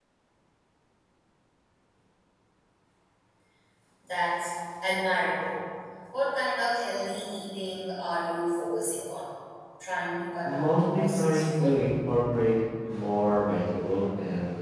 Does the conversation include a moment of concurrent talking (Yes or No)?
Yes